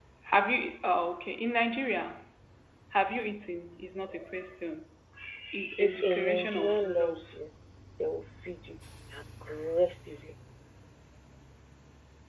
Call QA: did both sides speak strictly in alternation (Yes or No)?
No